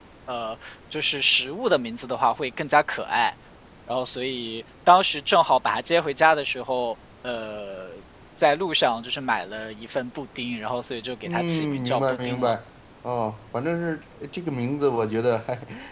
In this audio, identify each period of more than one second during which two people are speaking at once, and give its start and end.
11.2-12.5

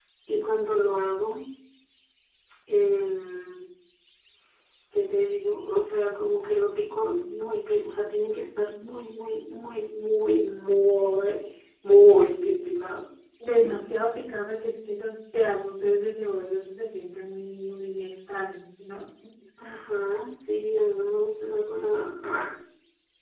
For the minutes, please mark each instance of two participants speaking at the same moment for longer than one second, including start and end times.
none

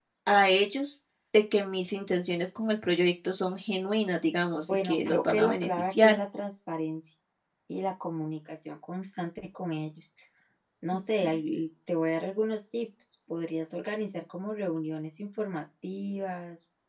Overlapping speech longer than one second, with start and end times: 4.7-6.2

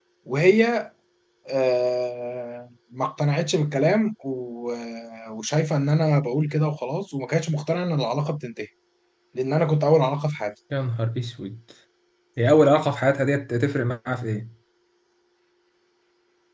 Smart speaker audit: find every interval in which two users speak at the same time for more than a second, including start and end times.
none

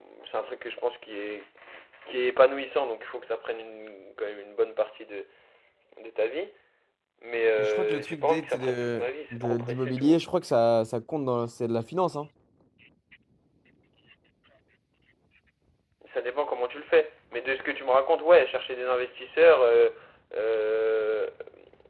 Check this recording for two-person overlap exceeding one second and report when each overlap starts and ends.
7.6-10.2

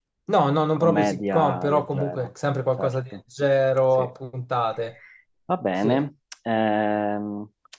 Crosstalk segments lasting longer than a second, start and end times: 0.8-2.3

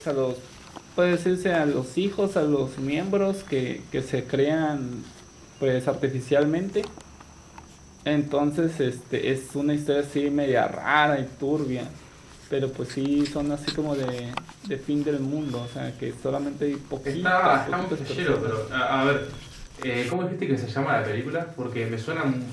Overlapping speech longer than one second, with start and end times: 17.1-18.6

